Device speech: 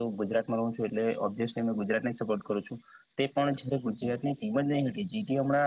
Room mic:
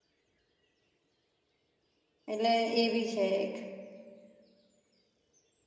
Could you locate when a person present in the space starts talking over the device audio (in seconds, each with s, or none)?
2.3 s